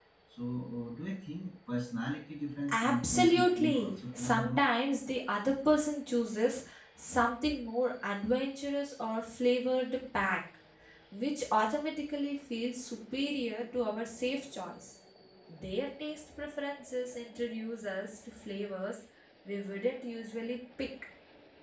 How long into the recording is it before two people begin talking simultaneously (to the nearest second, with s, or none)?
3 s